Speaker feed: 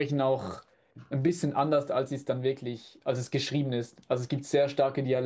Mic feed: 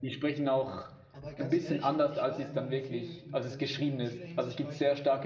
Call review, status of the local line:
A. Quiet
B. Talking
B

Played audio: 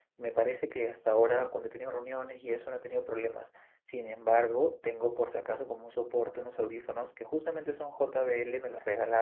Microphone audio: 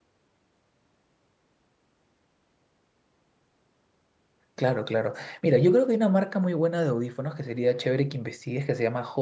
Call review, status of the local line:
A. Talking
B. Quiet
A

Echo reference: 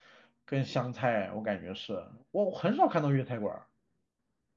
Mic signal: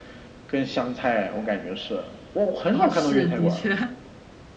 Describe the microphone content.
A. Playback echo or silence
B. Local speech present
B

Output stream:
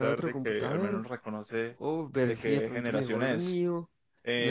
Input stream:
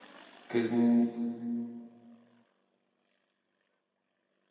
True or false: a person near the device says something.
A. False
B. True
B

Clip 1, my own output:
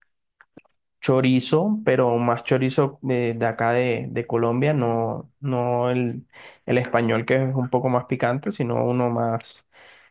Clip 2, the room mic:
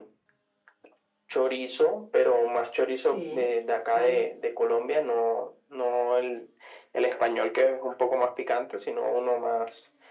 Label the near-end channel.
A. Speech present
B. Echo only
A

